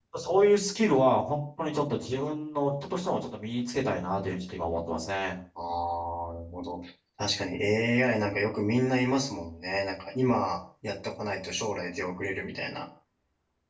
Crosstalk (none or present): none